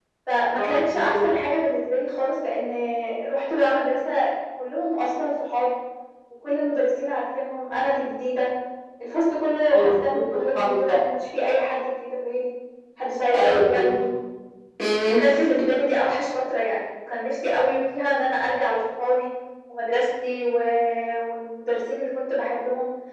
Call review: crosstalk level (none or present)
present